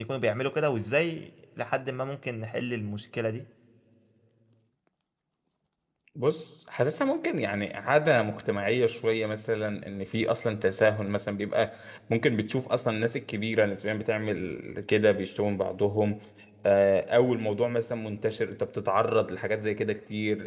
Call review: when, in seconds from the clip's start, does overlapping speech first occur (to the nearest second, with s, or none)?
none